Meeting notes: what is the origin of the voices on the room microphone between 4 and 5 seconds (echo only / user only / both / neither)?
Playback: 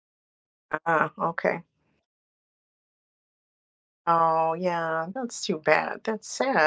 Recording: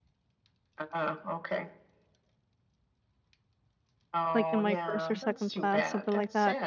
both